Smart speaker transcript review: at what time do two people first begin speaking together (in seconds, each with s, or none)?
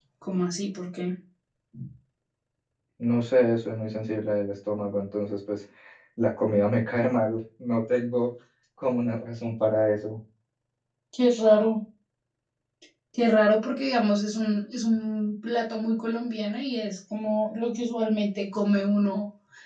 none